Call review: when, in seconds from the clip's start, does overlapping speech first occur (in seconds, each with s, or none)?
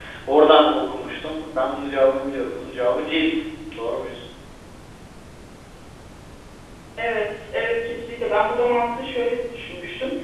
none